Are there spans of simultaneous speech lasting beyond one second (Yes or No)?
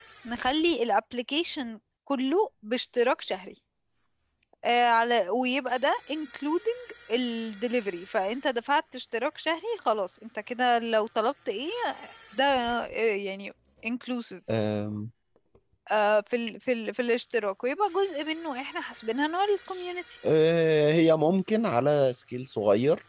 No